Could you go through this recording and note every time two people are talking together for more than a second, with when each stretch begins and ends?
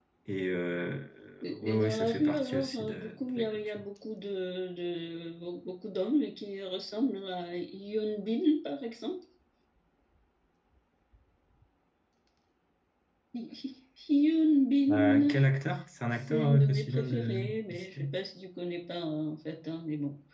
1.5-3.8, 16.1-18.1

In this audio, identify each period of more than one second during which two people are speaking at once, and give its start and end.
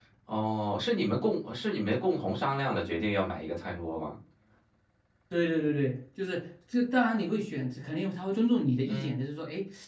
none

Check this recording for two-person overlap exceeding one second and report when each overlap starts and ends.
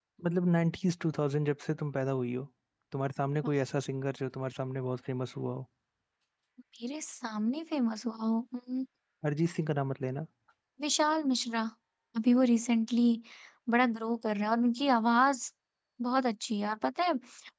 none

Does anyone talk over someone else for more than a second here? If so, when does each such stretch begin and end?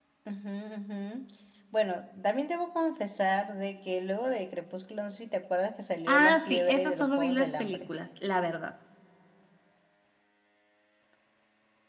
6.1-7.9

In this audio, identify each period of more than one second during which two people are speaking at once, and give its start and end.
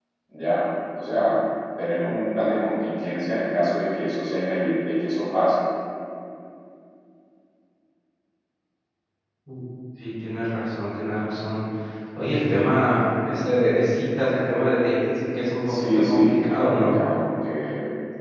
15.7-16.9

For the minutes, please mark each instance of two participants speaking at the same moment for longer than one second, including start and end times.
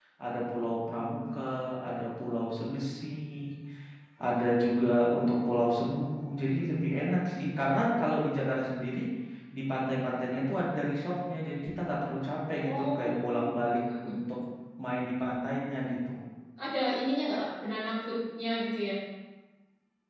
12.6-14.2

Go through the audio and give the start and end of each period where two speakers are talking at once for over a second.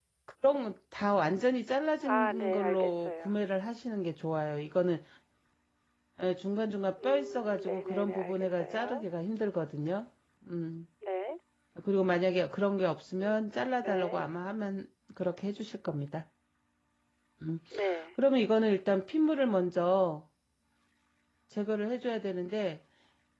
2.0-3.3, 7.0-9.1

